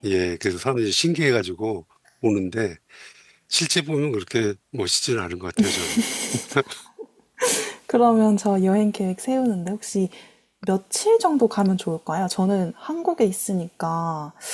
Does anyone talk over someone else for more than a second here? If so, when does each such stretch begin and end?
none

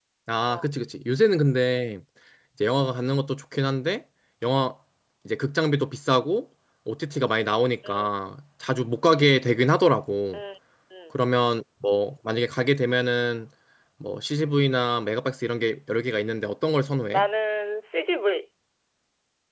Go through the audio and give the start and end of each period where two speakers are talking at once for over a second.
none

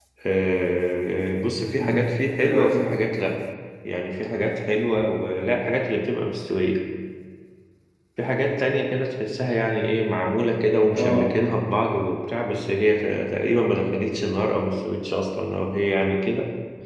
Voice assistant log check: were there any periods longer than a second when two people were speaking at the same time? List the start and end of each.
1.7-2.9

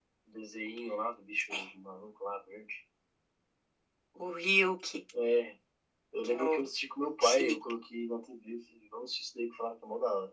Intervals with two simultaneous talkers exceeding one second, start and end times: none

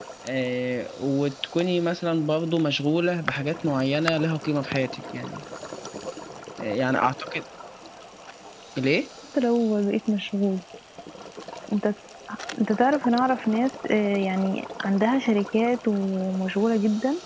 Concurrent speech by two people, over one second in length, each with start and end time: none

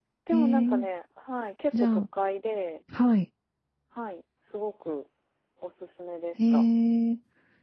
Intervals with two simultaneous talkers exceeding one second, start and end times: none

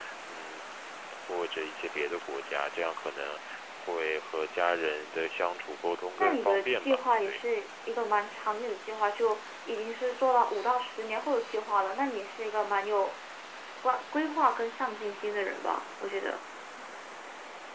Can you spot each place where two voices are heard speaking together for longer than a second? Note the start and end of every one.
6.2-7.4

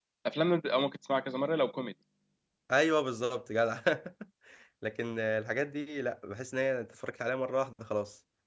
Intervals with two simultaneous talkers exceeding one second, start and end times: none

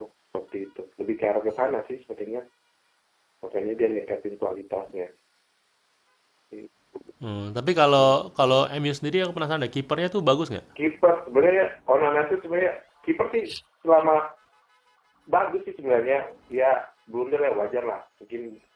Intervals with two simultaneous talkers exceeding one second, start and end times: none

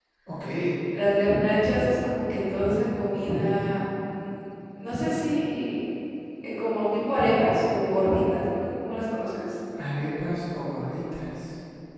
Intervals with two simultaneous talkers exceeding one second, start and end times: none

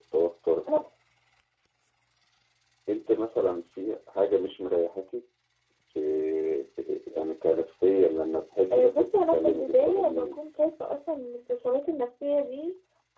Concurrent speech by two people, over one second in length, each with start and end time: 8.7-10.3

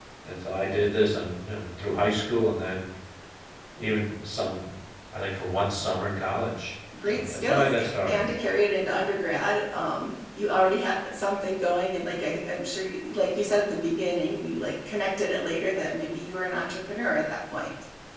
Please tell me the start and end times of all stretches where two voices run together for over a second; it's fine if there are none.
7.0-8.3

